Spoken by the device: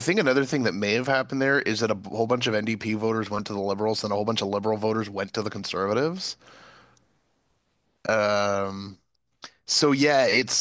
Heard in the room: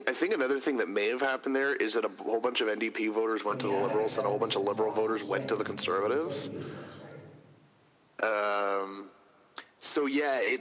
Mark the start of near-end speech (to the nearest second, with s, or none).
3 s